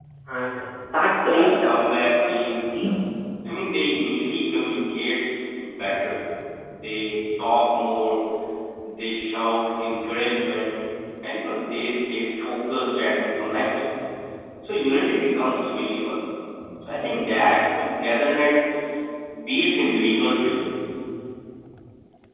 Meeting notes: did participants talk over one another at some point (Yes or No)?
Yes